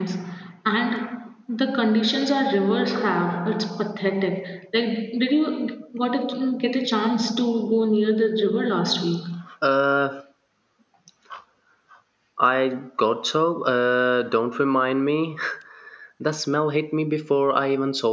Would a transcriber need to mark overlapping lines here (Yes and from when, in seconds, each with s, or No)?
No